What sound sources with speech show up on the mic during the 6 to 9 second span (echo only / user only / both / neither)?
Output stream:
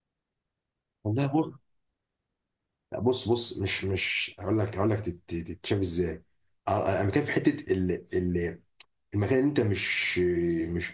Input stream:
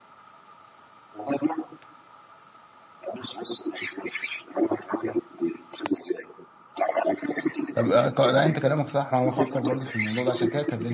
both